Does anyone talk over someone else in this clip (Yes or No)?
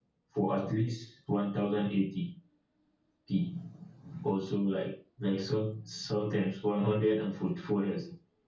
No